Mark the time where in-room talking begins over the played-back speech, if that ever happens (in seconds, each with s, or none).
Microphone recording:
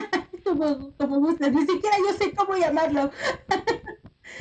none